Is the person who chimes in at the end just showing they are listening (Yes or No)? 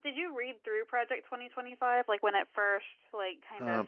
No